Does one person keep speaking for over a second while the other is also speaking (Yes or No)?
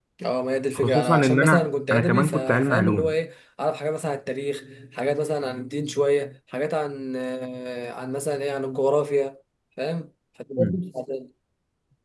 Yes